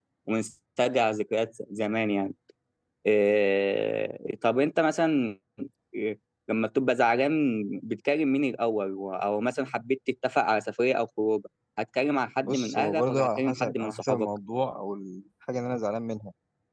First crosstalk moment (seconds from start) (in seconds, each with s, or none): 12.4 s